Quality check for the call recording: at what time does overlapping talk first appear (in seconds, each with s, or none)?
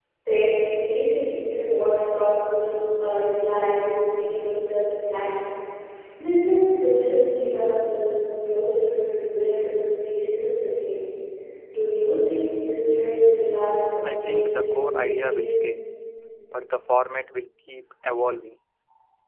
14.0 s